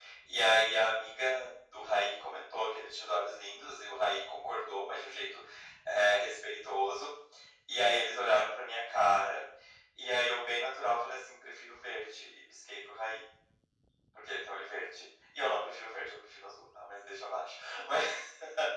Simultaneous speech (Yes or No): No